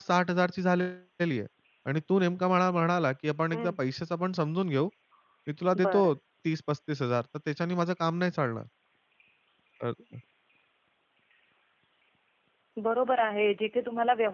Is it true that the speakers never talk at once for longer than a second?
Yes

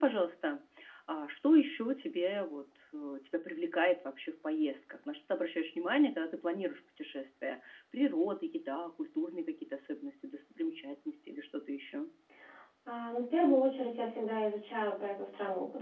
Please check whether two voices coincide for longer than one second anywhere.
No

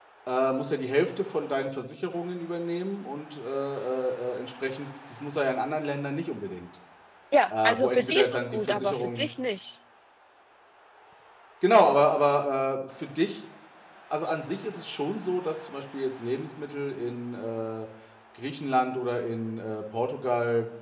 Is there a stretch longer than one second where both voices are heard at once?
Yes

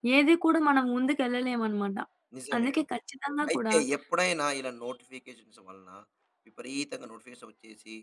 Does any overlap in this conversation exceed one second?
No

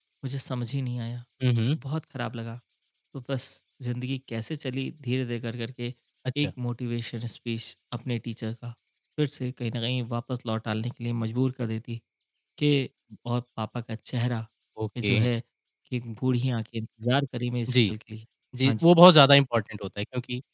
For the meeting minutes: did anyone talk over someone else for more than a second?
No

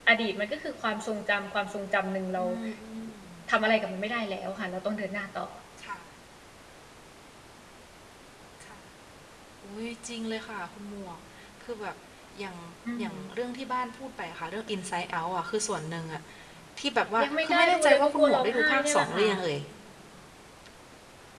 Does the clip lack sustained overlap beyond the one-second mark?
No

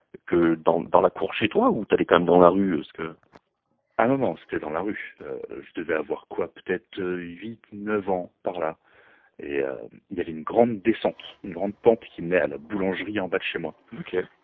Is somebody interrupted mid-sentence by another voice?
No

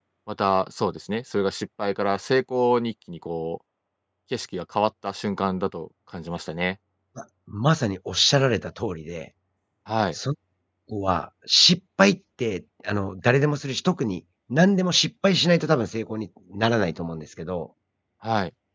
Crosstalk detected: No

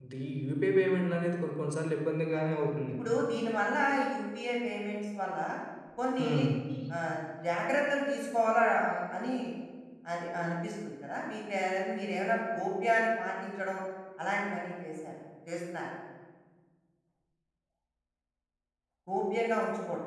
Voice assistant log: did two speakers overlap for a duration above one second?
No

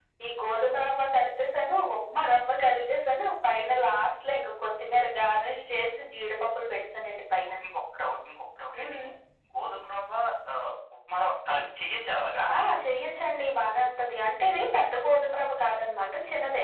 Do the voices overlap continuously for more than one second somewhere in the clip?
No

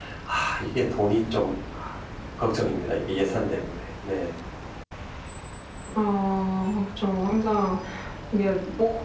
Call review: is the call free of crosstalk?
Yes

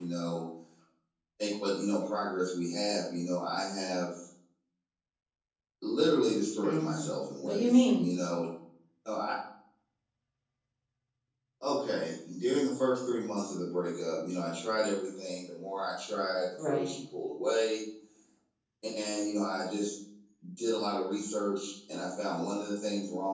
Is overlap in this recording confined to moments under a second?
No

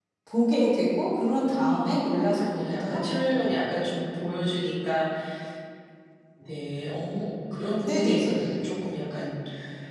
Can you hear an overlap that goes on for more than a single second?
Yes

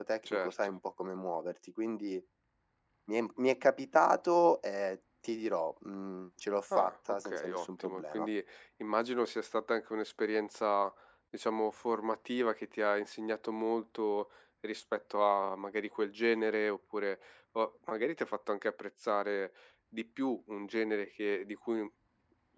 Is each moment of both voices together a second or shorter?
No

